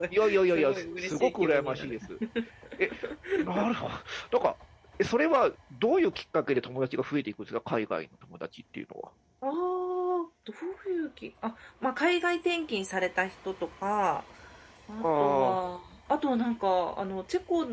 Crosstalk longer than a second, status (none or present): present